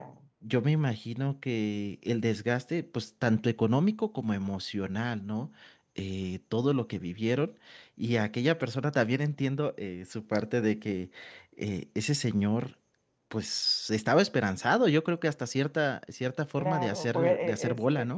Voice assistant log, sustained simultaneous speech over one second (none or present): present